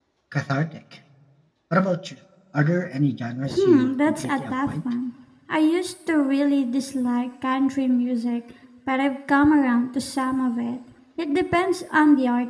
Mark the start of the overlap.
3.5 s

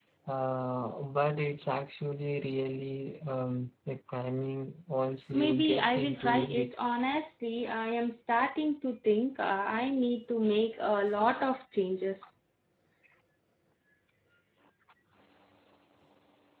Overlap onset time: 5.3 s

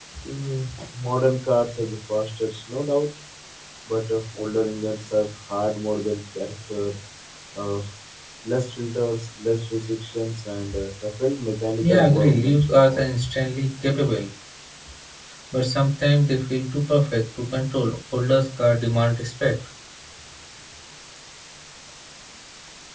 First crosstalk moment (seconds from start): 11.8 s

